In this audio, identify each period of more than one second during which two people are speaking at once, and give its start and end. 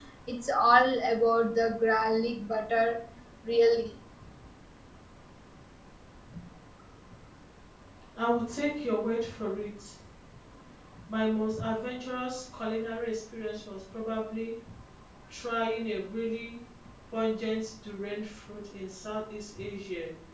none

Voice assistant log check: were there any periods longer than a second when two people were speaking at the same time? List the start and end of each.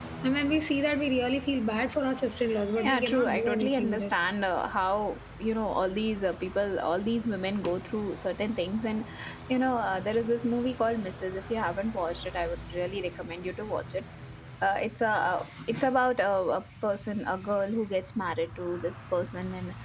2.8-4.1

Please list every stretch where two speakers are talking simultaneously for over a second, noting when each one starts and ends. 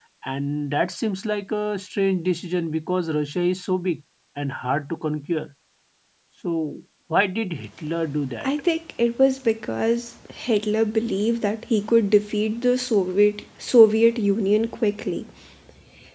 none

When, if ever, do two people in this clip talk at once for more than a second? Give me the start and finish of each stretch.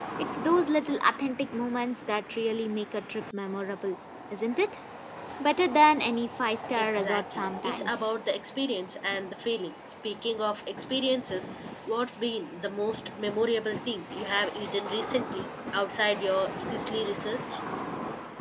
6.8-8.1

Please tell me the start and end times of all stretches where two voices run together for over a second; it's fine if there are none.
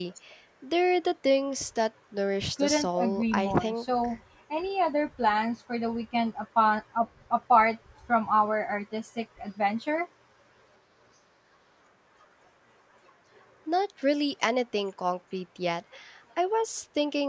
2.6-3.8

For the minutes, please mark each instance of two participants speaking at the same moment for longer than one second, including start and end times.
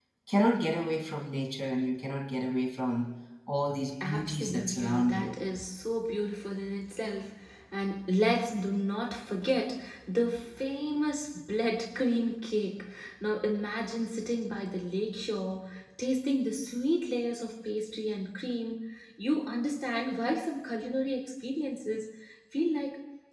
4.0-5.3

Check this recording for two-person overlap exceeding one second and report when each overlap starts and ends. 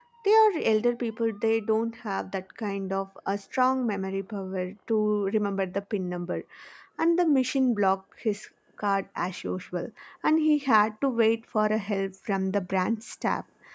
none

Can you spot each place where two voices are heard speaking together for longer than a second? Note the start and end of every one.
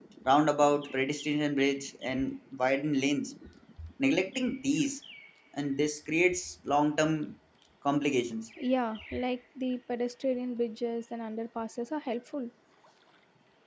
none

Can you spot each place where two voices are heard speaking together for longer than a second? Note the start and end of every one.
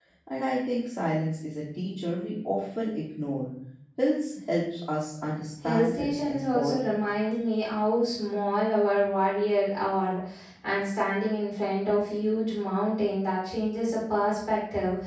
5.6-7.0

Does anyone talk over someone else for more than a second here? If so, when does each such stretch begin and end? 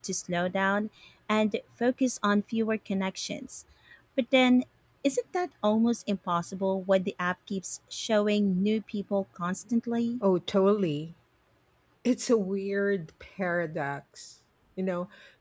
none

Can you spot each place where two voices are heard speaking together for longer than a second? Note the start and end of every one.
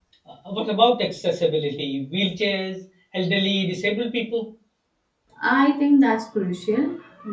none

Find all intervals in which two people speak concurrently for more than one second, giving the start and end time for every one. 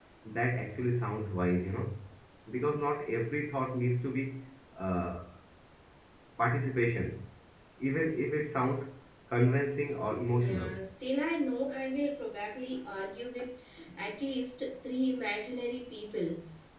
none

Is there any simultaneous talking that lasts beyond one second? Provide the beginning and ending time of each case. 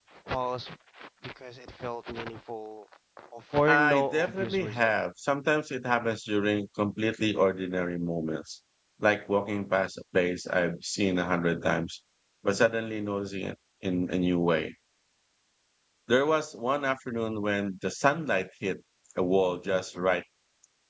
3.7-4.9

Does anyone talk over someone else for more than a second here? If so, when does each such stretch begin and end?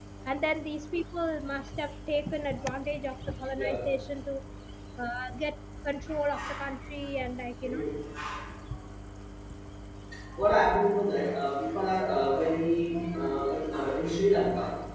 none

